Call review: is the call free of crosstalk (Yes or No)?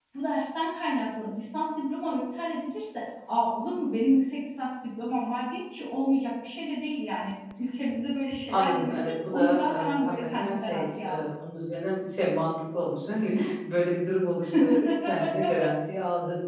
No